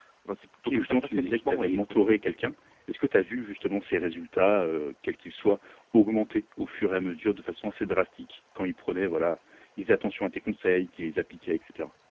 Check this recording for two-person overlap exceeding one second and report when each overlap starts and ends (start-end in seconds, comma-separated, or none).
0.7-2.2